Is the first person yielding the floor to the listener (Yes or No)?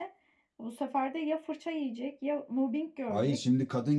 Yes